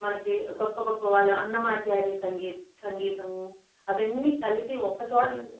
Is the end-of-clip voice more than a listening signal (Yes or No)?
No